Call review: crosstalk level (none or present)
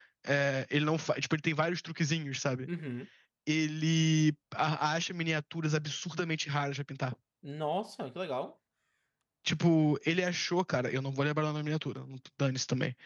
none